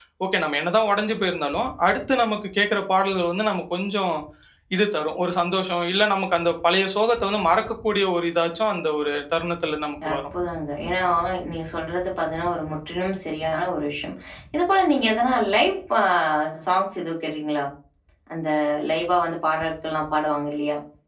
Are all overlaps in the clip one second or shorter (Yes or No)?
Yes